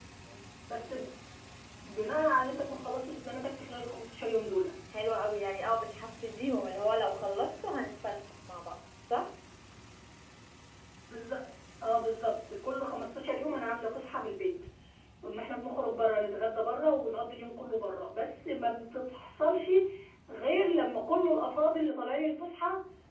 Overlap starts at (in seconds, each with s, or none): none